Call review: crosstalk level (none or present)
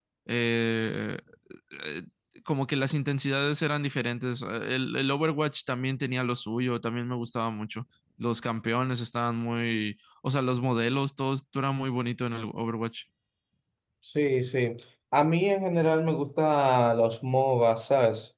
none